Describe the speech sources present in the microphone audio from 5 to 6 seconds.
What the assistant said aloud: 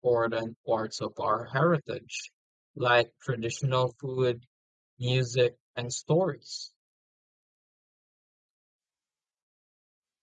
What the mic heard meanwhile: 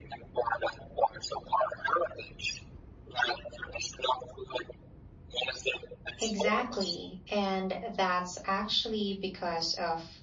echo only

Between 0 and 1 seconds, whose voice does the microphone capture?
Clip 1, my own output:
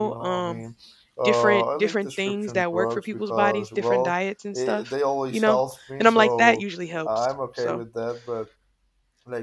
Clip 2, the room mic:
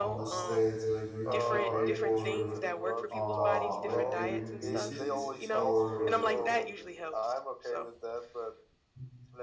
both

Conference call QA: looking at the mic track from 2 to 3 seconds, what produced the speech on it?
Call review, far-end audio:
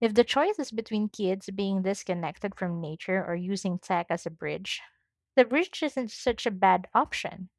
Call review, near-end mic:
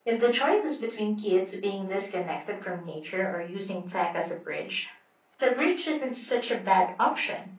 echo only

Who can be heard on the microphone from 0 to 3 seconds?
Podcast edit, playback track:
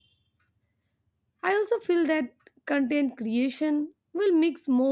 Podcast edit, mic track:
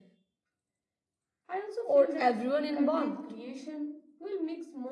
both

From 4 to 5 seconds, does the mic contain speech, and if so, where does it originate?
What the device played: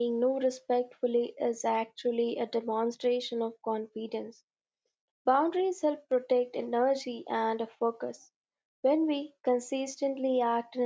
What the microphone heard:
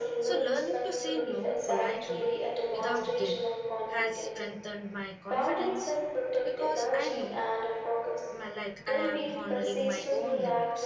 both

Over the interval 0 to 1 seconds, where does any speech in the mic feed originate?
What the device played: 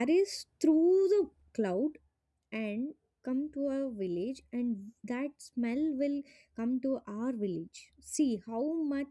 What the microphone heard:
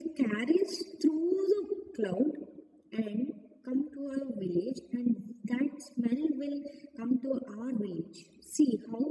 echo only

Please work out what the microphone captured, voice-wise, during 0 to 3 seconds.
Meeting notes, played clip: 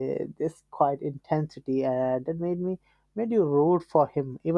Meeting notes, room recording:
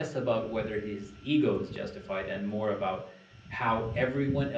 user only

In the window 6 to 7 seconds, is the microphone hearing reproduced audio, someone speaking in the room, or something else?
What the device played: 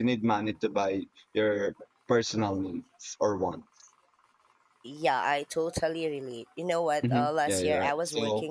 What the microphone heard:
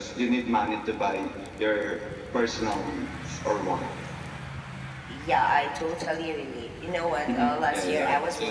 echo only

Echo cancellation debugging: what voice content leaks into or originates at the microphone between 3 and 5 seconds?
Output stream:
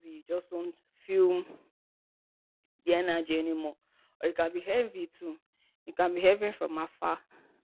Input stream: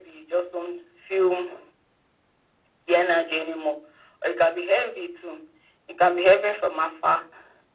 echo only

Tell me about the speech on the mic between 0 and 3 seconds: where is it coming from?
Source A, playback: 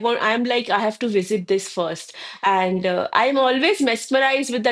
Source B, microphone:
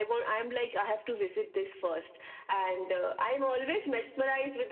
echo only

